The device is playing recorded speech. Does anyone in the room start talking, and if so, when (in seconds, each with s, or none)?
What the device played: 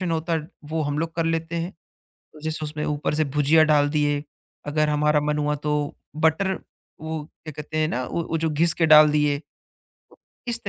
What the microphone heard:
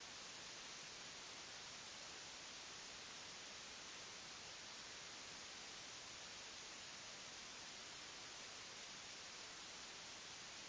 none